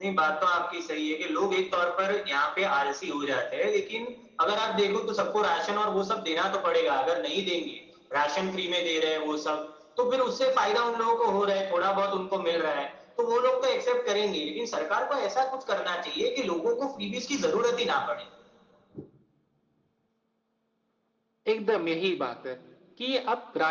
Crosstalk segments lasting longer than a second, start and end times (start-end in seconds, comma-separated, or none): none